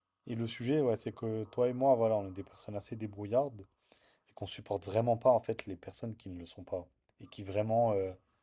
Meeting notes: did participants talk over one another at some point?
No

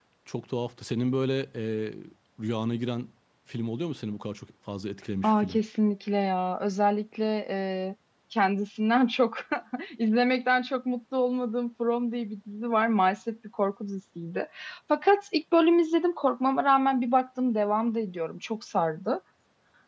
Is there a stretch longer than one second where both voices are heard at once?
No

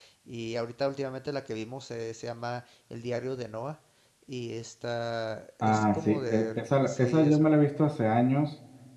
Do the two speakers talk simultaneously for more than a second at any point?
Yes, from 5.6 s

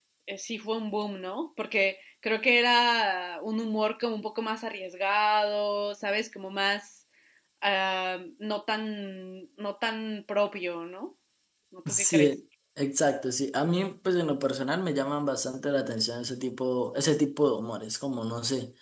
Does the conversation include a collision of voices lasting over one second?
No

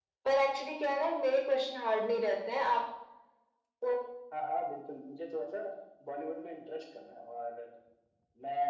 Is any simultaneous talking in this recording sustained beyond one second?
No

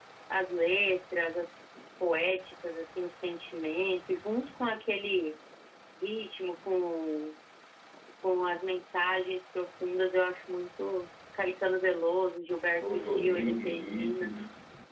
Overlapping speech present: Yes, from 12.8 s

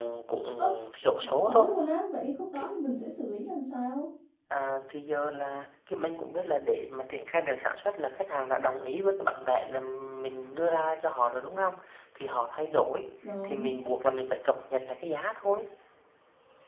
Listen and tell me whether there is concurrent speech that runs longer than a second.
No

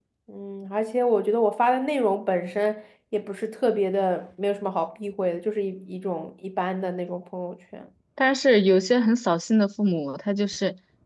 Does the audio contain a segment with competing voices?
No

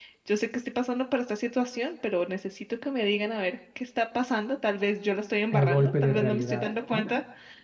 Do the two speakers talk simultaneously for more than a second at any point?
Yes, from 5.5 s

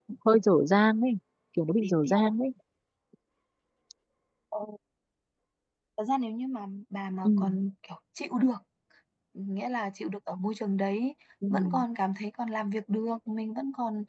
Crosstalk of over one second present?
No

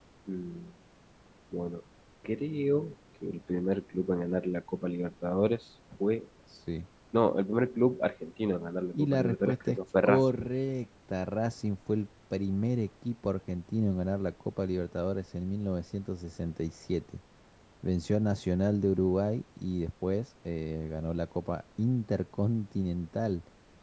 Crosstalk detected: Yes, from 8.9 s

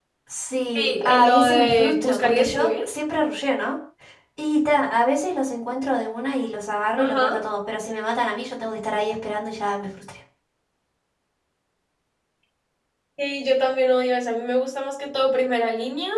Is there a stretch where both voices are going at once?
Yes, from 0.8 s

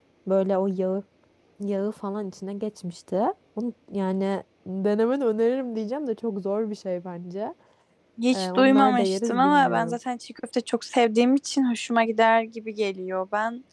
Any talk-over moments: Yes, from 8.3 s

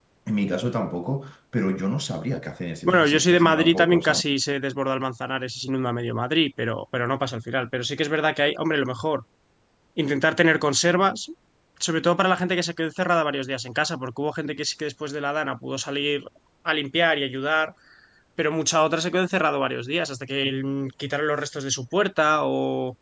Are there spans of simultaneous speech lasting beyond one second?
Yes, from 2.9 s

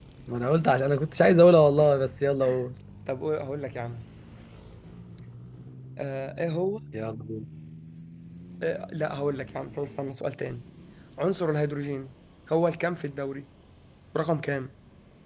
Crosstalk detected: No

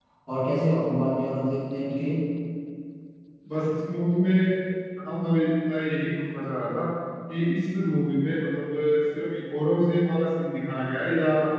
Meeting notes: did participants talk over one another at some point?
No

